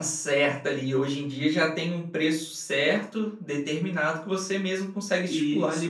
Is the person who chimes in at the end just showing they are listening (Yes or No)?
No